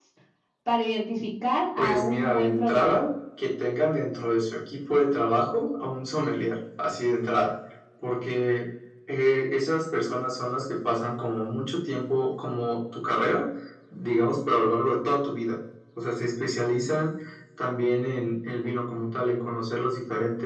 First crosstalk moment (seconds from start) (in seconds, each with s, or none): 1.8 s